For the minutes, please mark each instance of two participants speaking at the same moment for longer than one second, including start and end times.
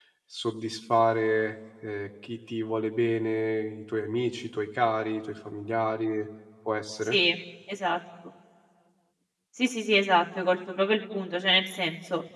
none

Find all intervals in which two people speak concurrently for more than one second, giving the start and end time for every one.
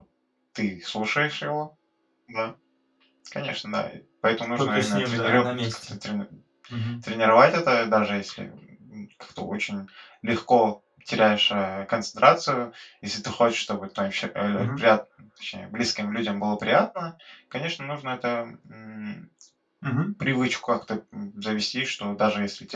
4.6-5.9

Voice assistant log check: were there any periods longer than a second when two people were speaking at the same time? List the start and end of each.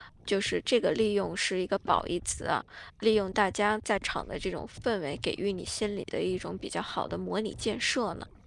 none

